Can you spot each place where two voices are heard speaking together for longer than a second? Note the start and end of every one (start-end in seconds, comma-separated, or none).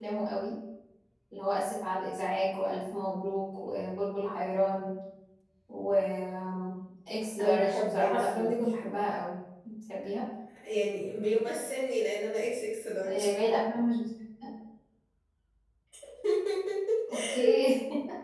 7.4-8.7